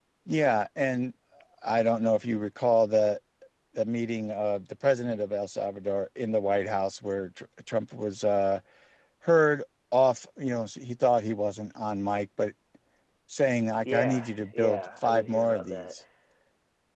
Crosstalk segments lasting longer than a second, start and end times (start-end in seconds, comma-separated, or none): 13.8-15.8